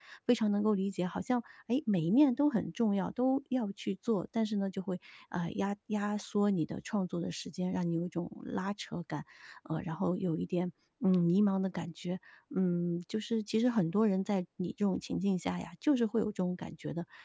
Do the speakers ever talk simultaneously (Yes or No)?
No